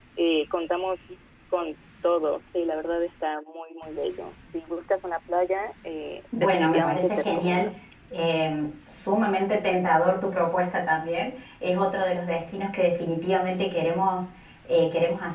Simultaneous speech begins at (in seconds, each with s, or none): 6.3 s